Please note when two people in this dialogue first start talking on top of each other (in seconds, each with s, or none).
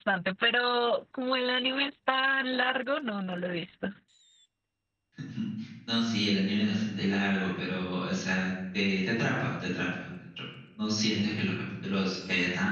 none